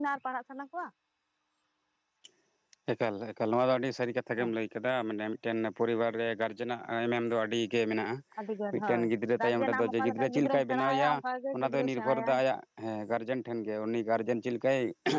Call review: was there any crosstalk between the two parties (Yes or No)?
Yes